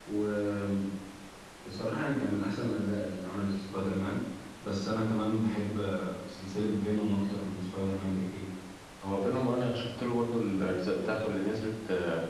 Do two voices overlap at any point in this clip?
No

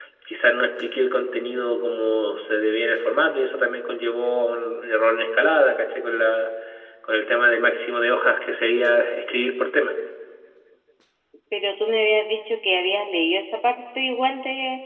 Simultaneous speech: No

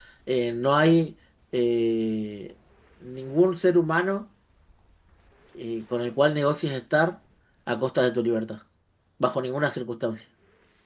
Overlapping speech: No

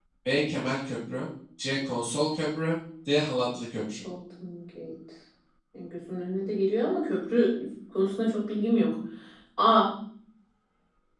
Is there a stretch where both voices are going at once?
No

